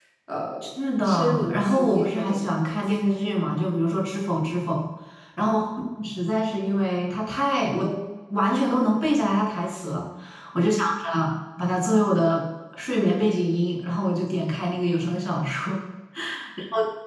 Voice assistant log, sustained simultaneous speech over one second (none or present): present